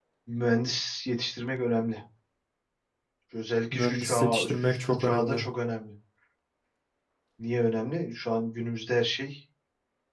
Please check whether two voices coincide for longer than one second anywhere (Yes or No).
Yes